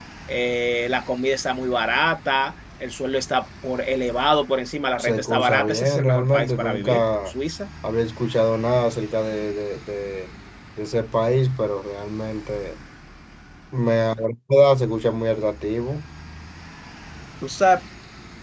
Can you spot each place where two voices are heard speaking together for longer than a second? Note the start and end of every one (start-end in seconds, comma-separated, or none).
5.0-7.3